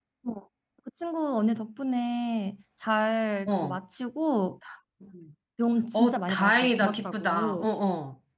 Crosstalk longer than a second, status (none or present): present